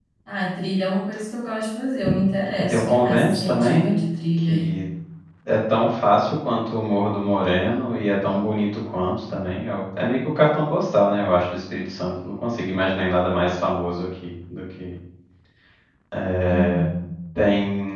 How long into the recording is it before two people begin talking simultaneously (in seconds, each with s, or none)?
2.6 s